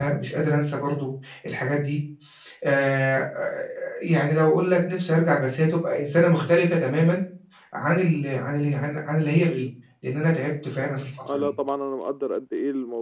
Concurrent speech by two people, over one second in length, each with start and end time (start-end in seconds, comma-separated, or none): none